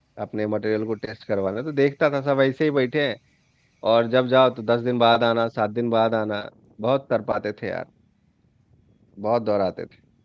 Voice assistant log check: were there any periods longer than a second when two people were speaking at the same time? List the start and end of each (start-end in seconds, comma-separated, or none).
none